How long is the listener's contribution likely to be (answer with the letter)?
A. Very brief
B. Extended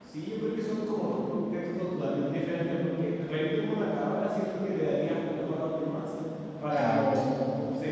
A